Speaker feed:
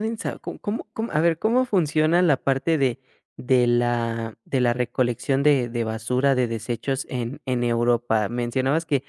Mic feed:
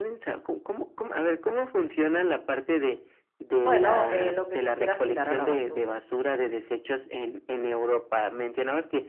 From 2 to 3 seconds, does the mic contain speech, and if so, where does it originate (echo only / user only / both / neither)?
echo only